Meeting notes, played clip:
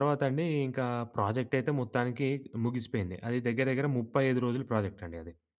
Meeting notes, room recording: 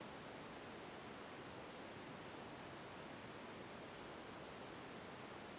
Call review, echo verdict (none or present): none